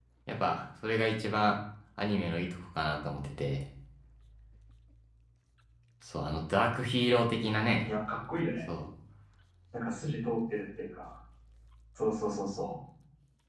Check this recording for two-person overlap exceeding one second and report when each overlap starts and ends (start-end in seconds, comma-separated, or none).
none